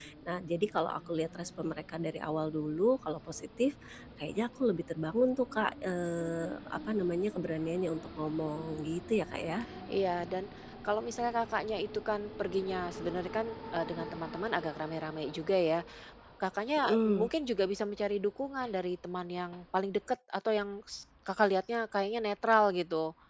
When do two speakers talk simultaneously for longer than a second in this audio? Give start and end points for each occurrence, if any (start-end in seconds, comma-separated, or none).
none